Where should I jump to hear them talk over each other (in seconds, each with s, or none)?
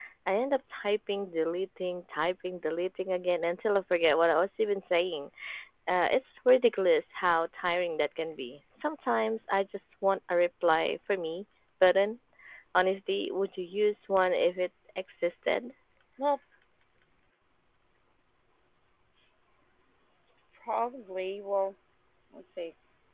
none